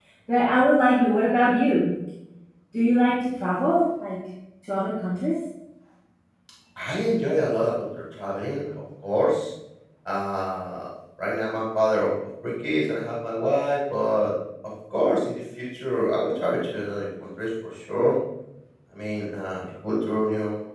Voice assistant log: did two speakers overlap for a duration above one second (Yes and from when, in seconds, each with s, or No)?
No